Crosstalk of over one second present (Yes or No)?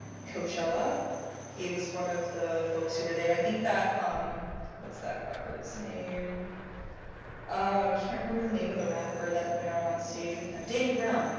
No